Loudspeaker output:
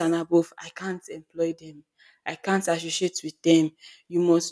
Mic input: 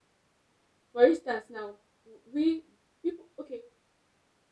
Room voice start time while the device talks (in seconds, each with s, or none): 0.9 s